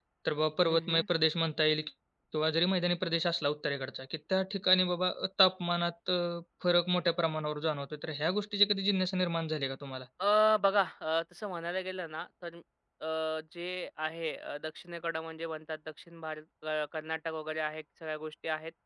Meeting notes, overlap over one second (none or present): none